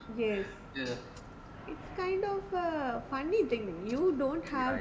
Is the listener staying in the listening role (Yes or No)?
Yes